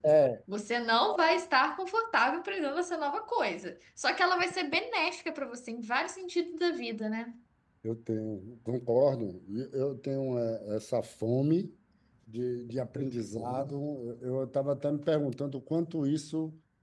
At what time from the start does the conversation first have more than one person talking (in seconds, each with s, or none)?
none